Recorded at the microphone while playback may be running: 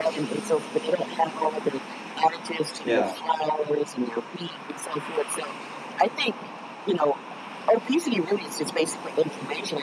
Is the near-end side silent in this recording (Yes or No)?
No